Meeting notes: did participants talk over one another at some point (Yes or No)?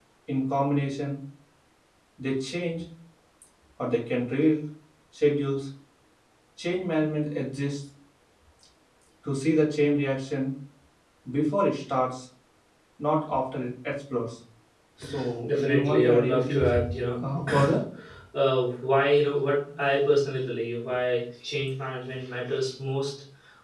Yes